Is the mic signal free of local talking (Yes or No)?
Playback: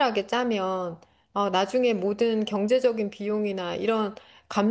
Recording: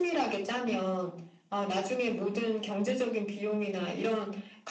Yes